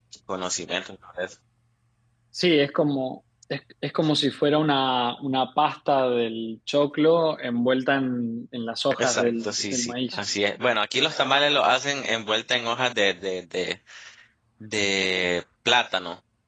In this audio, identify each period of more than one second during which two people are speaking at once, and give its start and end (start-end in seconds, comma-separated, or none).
9.0-10.2